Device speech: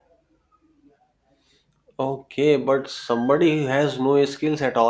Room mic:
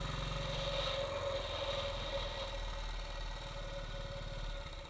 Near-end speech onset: none

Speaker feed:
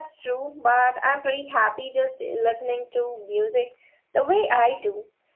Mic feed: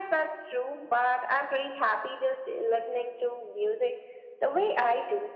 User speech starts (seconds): none

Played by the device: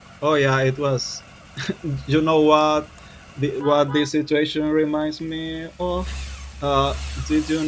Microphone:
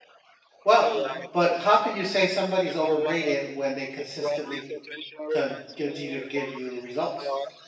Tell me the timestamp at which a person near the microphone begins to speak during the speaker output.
1 s

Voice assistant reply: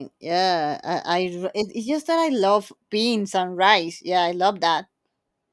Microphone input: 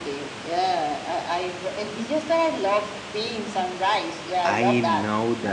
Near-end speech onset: 4 s

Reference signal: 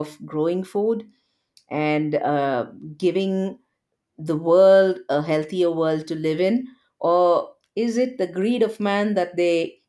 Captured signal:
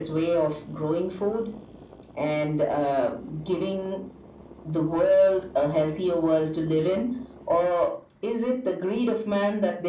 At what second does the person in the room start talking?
none

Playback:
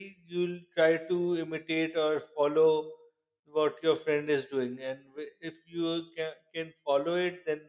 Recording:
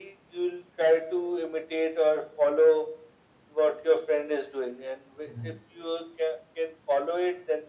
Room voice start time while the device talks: 5 s

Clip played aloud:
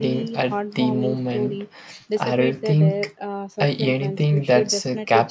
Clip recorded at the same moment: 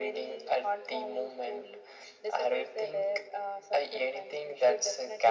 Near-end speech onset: none

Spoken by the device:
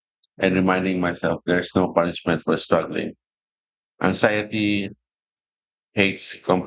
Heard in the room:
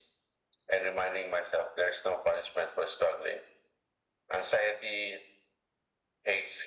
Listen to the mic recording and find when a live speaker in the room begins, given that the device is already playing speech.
none

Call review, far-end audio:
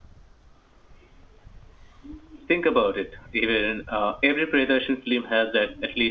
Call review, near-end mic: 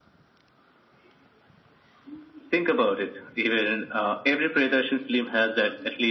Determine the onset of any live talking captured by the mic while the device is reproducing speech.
none

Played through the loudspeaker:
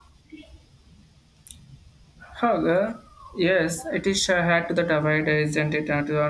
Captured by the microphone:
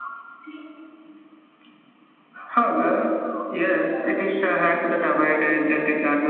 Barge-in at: none

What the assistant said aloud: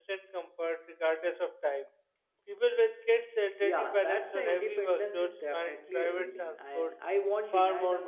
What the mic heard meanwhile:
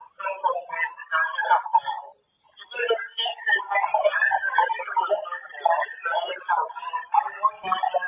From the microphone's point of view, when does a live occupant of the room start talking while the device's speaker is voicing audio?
none

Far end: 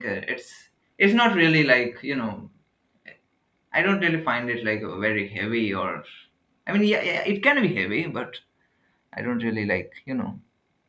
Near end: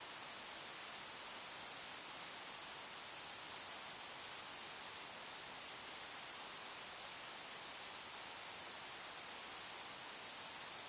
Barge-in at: none

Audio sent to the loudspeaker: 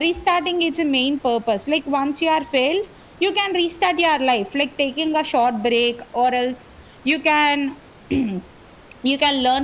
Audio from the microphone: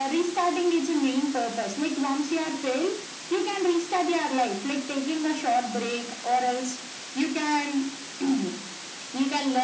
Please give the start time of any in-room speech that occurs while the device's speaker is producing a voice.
none

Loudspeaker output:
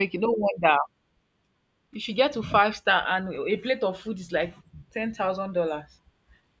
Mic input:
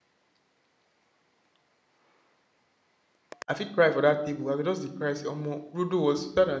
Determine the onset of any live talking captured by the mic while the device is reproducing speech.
3 s

